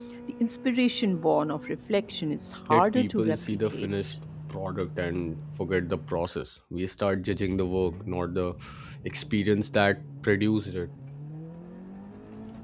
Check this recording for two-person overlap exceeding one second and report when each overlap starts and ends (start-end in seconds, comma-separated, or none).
2.7-3.9